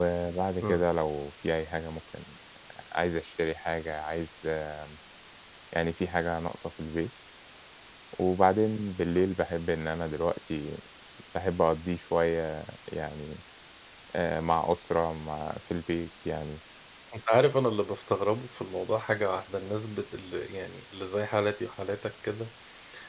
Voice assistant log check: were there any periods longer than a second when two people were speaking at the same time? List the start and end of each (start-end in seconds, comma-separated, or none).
none